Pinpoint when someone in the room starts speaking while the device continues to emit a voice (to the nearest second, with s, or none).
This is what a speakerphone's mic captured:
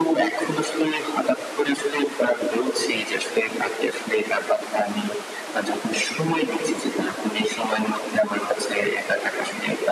none